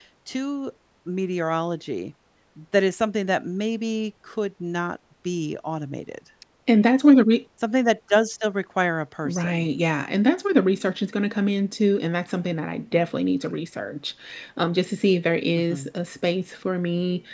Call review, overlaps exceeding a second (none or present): none